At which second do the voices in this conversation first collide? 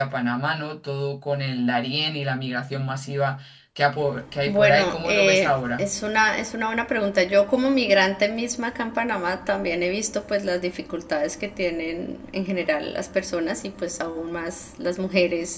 4.4 s

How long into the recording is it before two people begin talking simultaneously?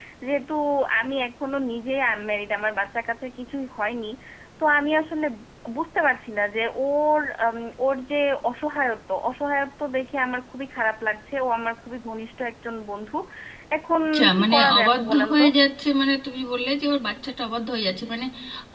14.1 s

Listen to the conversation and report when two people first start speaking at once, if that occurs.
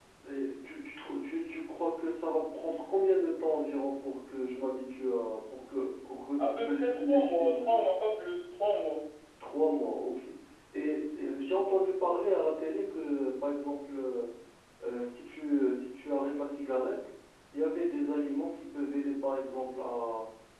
6.4 s

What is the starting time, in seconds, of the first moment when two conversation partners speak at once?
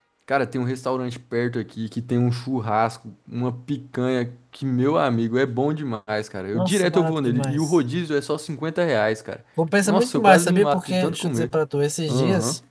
6.5 s

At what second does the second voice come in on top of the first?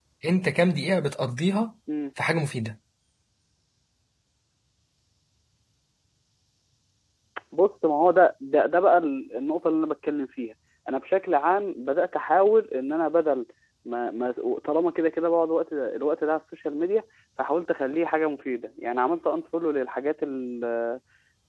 none

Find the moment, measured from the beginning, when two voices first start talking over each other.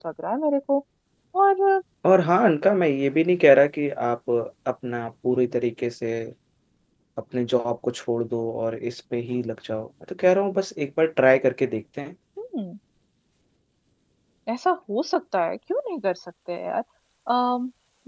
none

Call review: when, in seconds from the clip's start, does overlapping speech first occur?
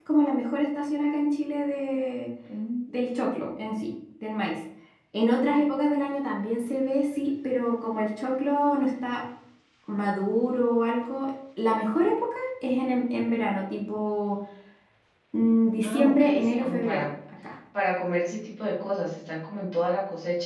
15.8 s

